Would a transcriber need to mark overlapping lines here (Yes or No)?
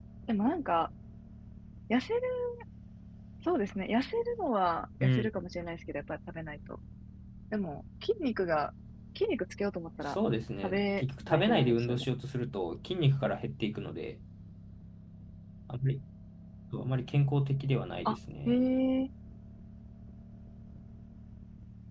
Yes